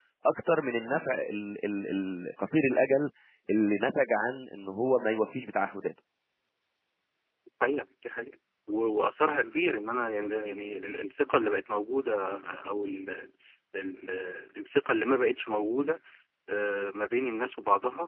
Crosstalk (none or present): none